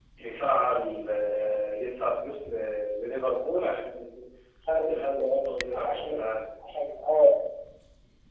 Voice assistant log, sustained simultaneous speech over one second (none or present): none